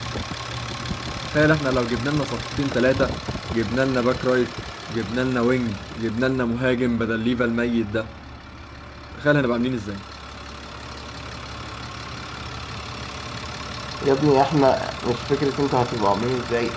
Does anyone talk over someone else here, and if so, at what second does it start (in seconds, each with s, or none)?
none